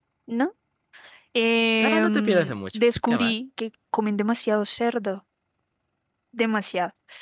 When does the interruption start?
1.8 s

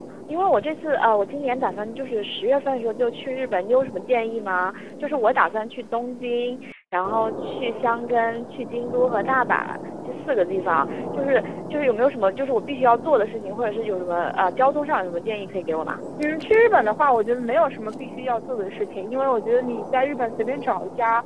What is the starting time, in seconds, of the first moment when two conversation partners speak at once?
none

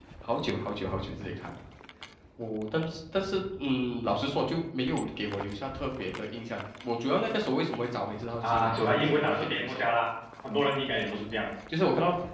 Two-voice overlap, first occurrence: 8.4 s

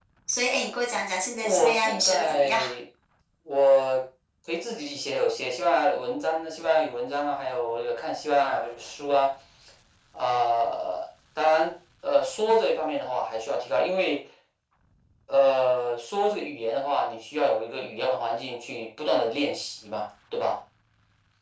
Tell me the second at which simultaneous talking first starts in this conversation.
1.3 s

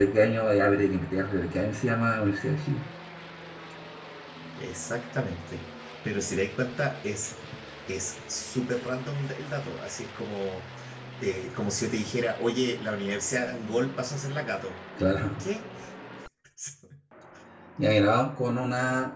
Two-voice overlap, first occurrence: none

